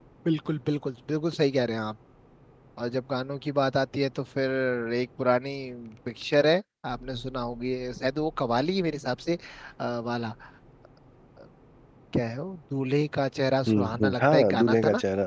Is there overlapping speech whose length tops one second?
Yes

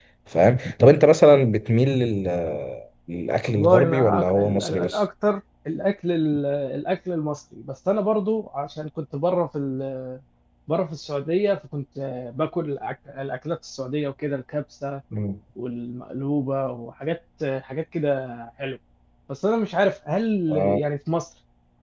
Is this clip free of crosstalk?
No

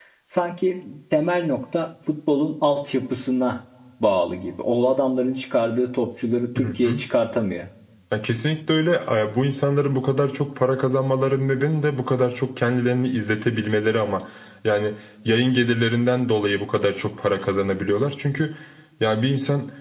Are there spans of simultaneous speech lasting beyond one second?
No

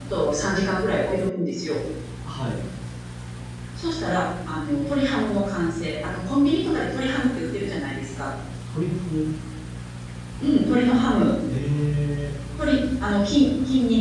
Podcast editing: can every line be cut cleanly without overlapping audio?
Yes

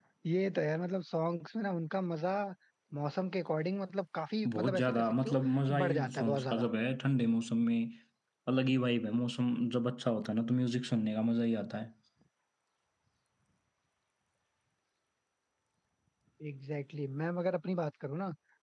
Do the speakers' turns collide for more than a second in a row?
Yes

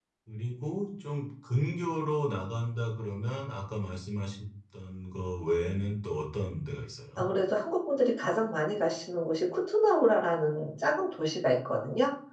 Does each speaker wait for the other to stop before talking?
Yes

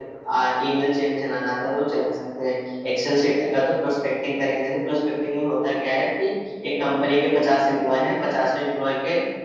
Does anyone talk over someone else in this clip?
No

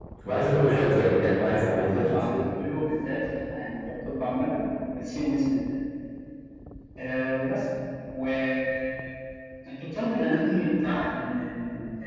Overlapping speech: Yes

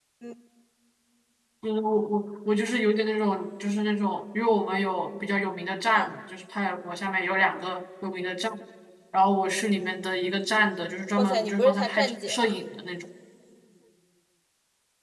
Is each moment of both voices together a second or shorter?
No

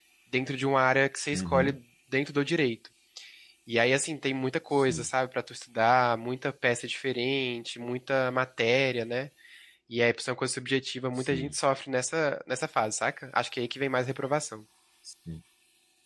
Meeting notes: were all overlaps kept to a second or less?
Yes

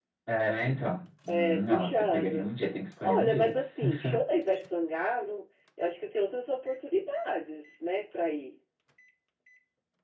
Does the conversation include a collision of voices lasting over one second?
Yes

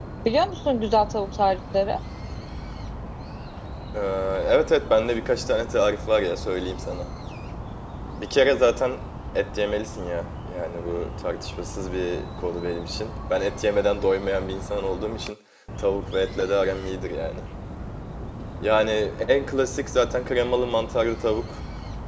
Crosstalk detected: No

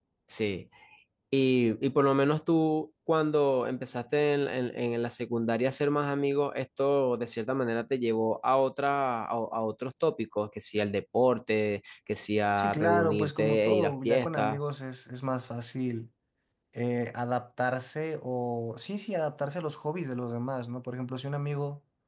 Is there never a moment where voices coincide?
No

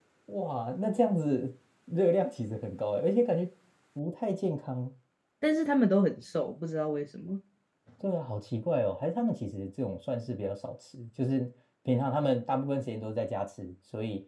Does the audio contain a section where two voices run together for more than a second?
No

